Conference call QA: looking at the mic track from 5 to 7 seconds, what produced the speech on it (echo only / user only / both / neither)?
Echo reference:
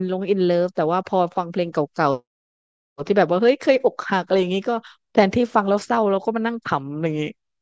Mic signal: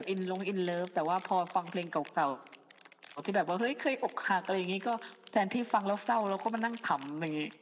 echo only